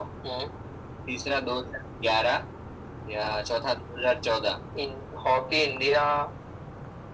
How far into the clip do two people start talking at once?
none

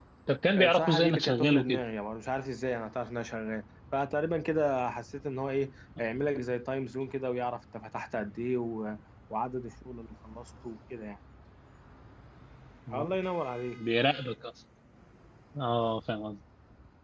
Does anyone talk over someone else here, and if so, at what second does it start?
0.6 s

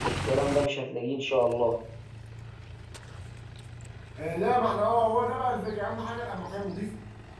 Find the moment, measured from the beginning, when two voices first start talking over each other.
none

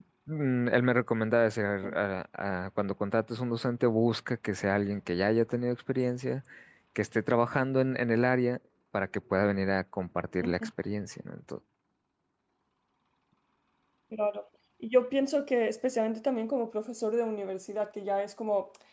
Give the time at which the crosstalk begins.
none

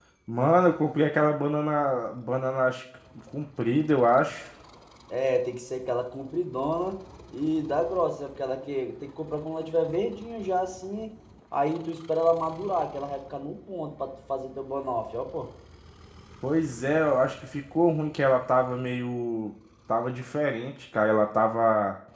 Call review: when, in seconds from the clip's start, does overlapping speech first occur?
none

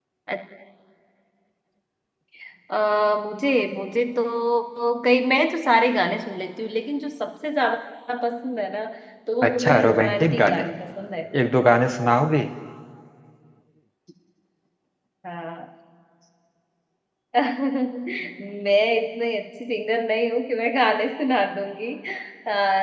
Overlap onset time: 9.4 s

